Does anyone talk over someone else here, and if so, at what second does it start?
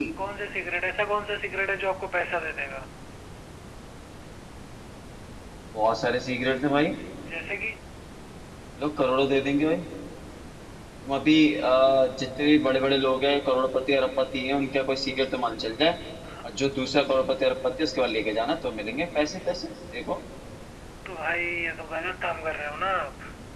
none

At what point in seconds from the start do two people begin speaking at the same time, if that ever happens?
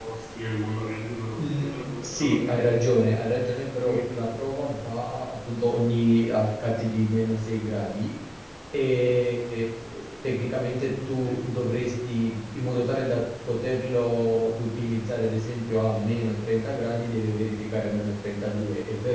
1.4 s

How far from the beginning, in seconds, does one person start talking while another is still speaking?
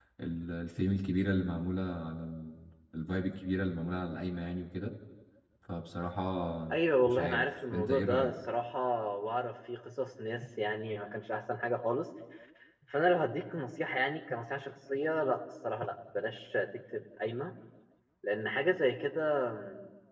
7.1 s

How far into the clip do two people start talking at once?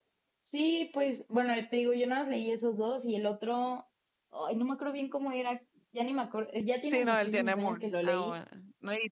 6.9 s

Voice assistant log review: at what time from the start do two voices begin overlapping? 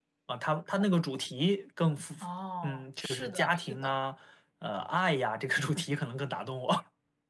2.6 s

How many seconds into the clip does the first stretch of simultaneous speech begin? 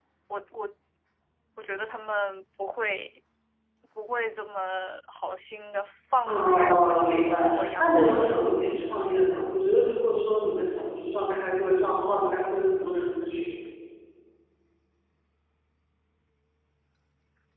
6.3 s

